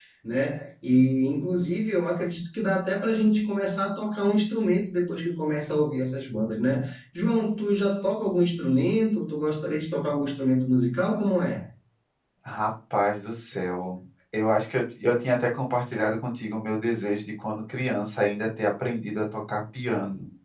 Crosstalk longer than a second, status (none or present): none